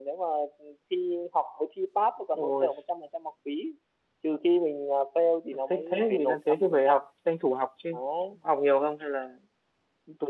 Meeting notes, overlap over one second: present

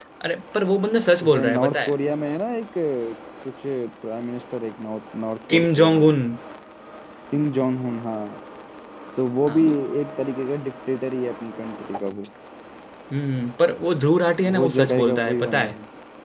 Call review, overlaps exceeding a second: present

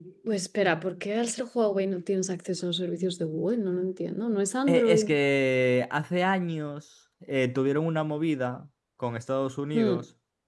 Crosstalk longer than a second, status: none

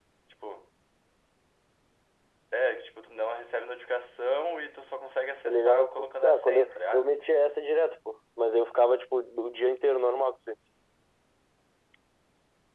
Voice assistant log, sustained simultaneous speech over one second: present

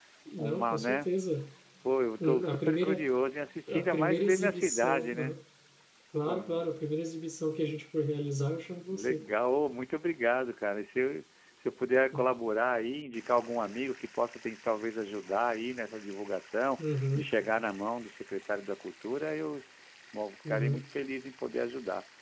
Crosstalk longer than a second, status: present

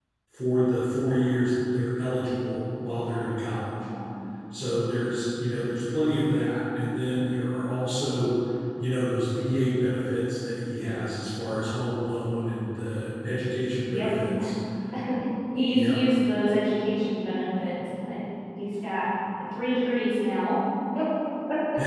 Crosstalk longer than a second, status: none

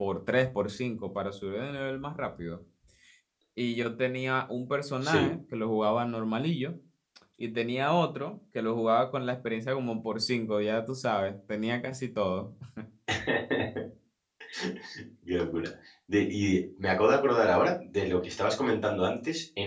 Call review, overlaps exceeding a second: none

